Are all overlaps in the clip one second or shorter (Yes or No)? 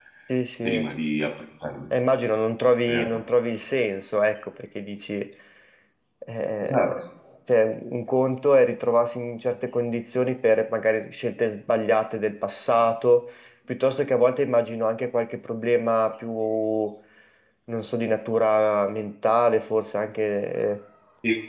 Yes